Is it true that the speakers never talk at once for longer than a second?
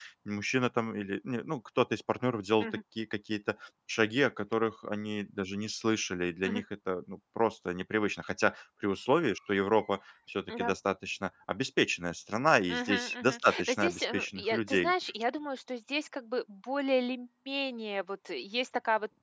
No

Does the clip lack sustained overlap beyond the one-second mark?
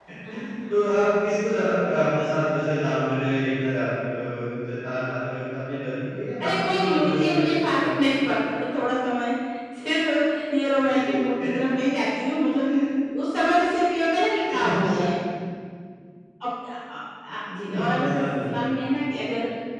No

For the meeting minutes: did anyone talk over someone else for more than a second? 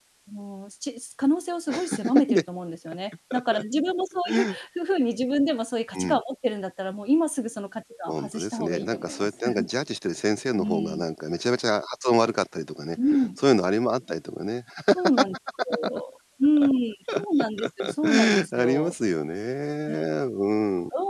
Yes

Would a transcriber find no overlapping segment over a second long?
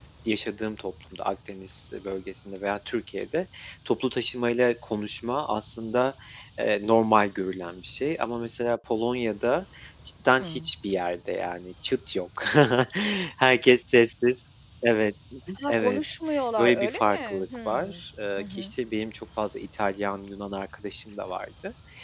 No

